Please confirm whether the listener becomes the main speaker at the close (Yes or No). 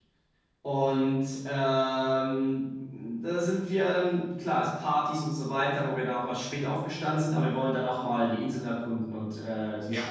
Yes